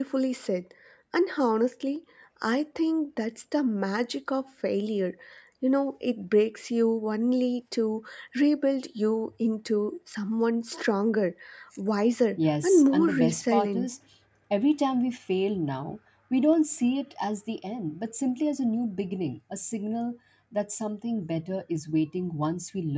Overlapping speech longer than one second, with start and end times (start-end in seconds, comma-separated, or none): 12.6-13.9